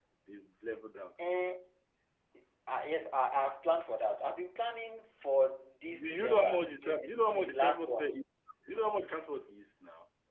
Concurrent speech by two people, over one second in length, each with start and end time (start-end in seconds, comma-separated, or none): 6.0-8.2